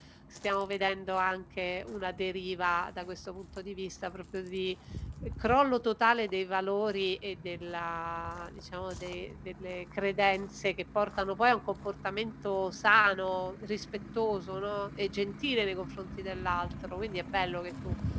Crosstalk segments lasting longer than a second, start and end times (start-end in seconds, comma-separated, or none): none